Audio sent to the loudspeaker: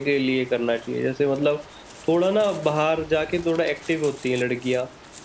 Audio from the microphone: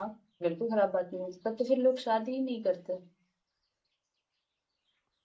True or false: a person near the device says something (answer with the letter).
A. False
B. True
B